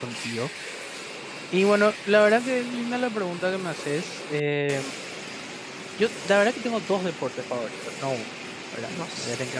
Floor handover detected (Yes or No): No